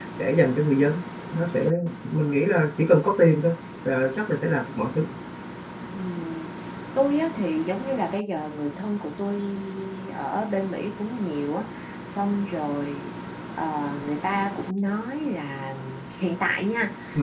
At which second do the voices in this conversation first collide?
none

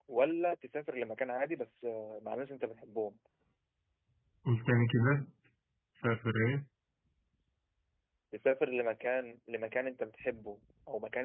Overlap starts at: none

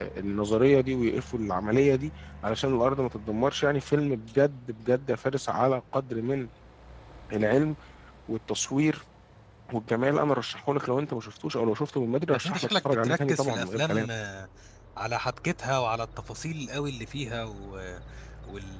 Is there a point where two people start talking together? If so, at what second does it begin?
12.3 s

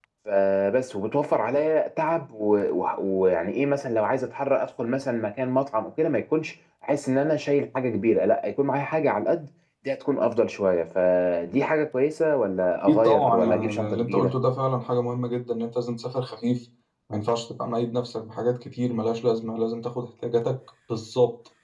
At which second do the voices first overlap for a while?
12.9 s

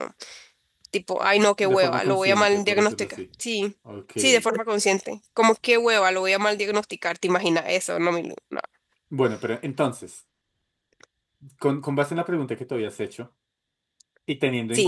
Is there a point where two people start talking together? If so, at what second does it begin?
1.7 s

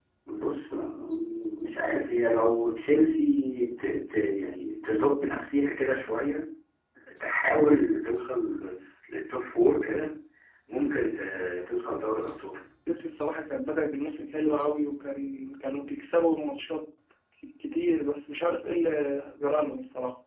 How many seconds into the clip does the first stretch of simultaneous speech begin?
none

